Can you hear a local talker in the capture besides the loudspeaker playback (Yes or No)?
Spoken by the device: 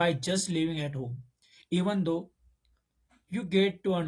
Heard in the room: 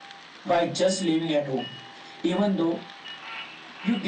No